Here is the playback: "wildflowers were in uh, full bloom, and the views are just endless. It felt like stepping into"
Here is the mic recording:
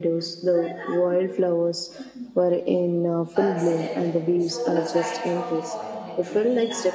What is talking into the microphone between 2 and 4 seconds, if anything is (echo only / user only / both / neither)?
both